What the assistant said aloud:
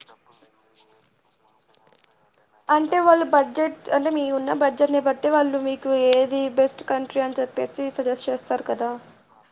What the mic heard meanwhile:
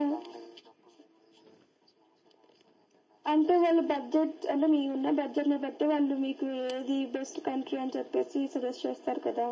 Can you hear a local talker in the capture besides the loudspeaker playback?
No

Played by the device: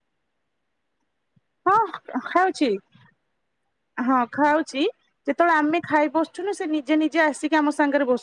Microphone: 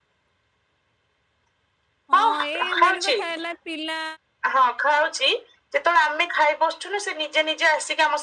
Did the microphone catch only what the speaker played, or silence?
No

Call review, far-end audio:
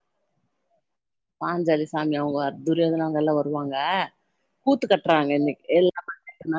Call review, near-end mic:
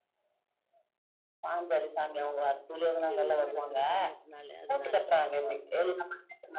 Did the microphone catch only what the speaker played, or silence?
No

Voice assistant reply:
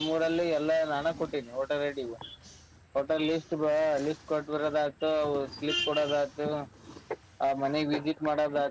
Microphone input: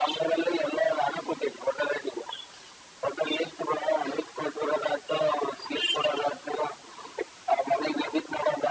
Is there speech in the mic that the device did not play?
No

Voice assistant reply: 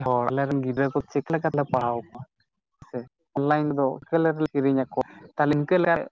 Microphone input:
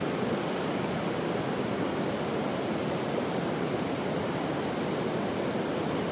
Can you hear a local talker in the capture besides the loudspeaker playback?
No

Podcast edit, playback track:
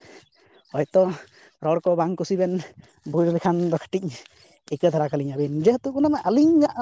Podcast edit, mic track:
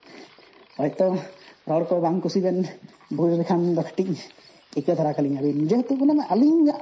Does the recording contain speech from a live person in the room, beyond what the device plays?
No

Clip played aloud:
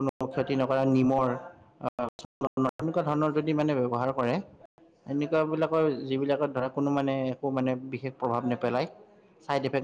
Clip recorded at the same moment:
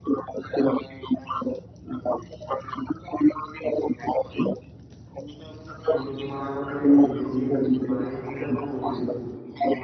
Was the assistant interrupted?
Yes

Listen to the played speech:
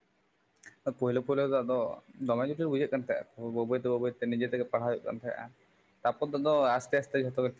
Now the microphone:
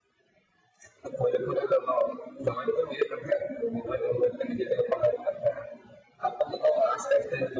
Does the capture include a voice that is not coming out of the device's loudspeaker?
No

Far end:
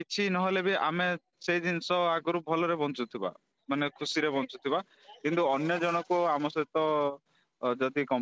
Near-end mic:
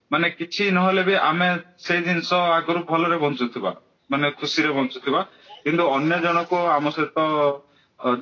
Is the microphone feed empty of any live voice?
Yes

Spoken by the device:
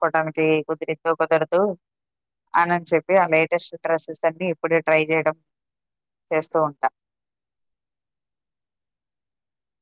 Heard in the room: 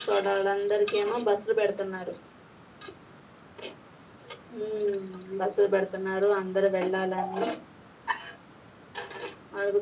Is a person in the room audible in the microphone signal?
Yes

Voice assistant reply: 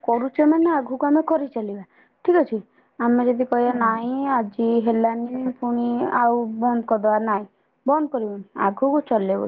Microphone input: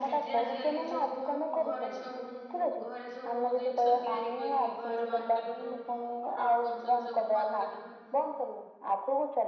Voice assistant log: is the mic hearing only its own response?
No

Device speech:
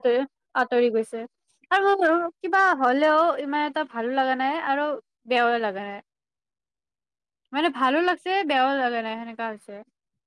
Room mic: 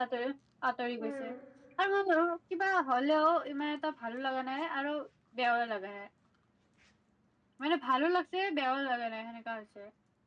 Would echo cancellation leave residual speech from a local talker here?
Yes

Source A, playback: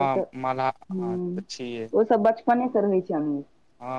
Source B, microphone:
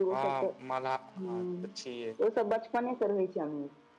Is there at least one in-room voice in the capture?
No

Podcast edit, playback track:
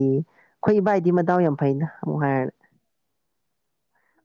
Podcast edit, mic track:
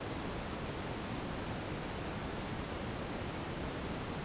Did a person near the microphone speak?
No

